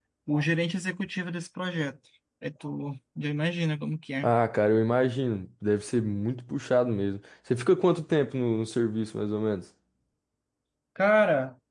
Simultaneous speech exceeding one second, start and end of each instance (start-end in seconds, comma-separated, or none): none